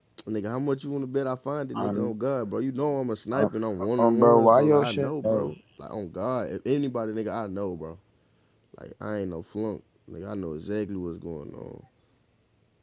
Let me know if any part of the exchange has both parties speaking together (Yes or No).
Yes